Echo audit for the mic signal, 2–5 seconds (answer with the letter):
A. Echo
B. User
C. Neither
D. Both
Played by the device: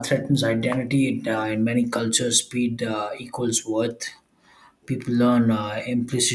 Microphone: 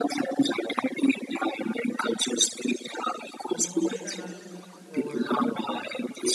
D